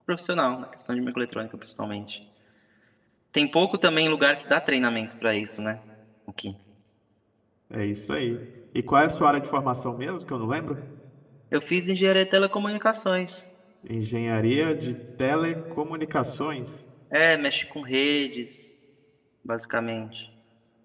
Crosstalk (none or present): none